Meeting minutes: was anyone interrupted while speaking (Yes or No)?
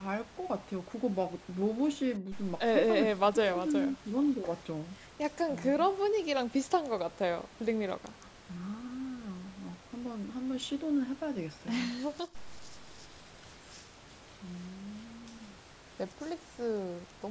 Yes